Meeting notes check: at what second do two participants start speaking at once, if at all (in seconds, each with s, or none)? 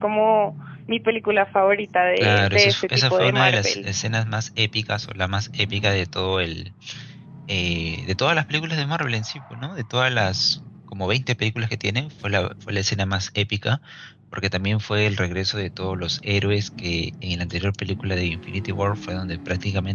2.2 s